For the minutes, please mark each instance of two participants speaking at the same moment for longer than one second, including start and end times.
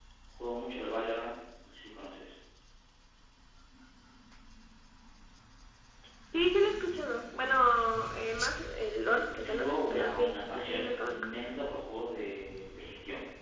9.0-11.3

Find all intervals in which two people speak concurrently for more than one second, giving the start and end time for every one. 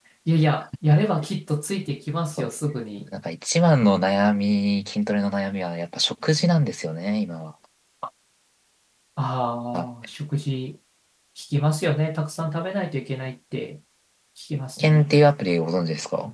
none

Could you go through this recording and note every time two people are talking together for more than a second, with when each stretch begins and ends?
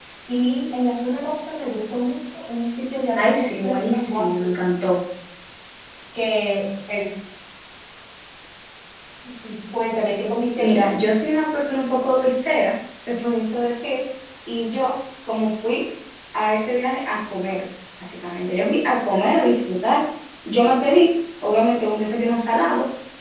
3.1-4.5

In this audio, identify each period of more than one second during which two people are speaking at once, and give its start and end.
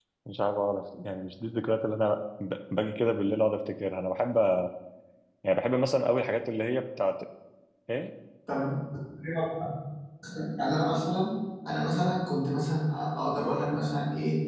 none

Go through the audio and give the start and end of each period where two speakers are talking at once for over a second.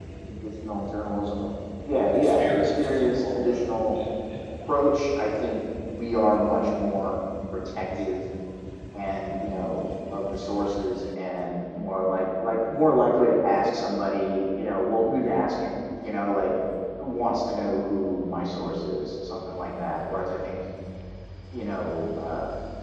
2.1-4.0

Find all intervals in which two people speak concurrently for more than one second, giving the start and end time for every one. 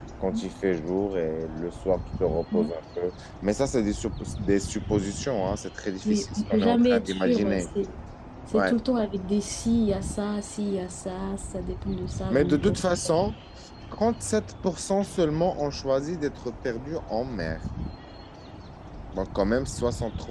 6.0-7.7

